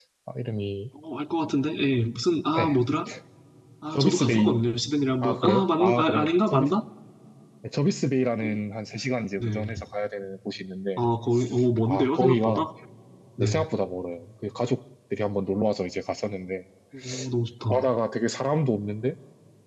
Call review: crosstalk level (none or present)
present